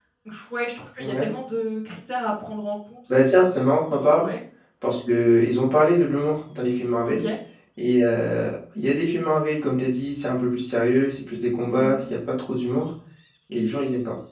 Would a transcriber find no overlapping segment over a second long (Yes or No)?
Yes